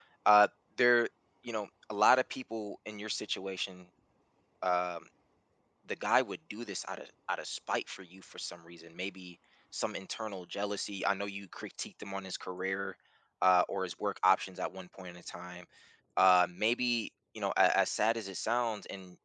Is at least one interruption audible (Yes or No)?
No